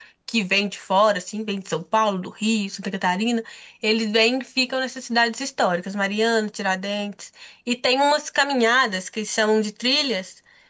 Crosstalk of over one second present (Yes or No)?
No